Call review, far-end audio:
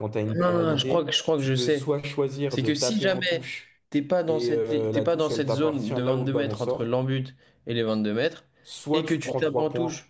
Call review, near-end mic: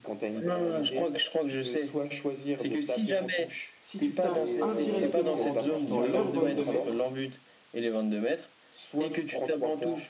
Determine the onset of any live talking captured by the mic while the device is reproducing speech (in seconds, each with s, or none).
3.8 s